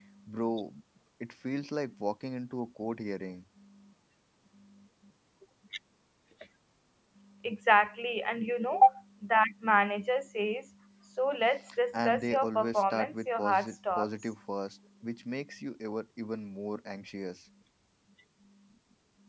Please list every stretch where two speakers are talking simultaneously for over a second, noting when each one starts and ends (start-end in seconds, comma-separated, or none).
12.0-14.1